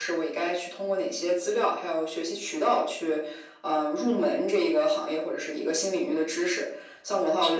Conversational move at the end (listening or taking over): listening